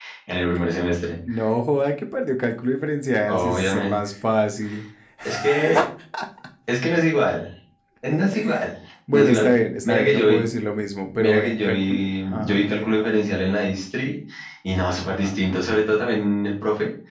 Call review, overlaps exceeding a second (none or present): present